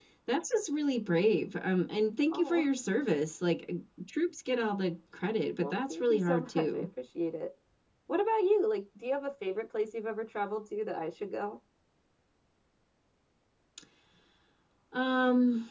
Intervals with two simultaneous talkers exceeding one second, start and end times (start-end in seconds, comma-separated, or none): 5.6-6.9